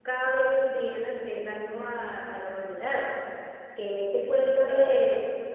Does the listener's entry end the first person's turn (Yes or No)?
No